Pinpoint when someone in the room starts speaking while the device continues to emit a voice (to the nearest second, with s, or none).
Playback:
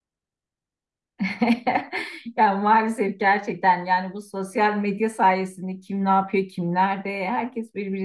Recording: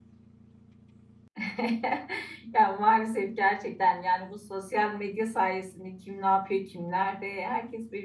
none